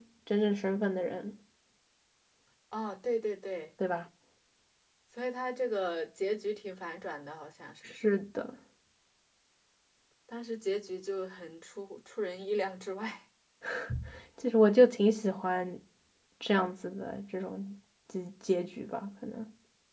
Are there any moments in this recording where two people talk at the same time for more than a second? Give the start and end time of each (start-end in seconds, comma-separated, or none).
none